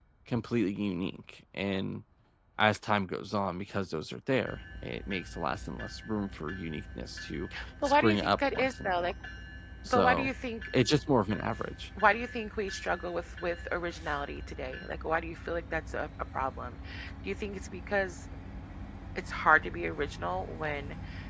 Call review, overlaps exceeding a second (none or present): present